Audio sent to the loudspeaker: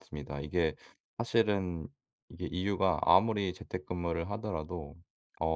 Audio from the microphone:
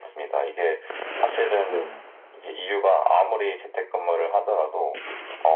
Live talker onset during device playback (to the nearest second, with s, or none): 2 s